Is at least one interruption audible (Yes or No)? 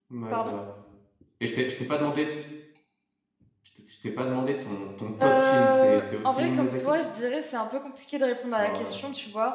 Yes